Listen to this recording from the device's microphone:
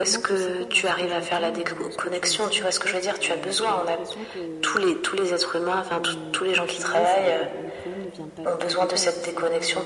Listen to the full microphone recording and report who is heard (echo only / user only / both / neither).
both